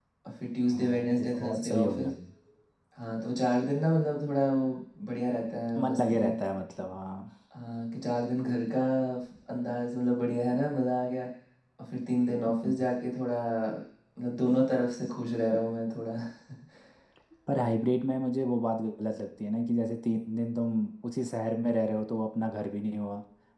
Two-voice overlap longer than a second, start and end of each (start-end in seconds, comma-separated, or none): 0.7-2.1